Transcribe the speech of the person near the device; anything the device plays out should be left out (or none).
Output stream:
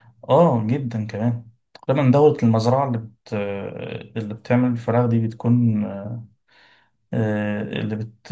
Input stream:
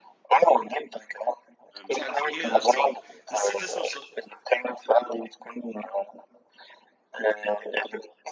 مش عارف ايه اند ساور نسيت اسم الصوص